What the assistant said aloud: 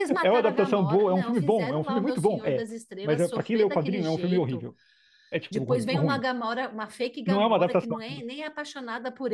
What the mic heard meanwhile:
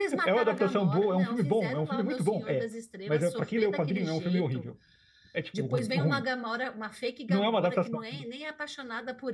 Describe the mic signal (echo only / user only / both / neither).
echo only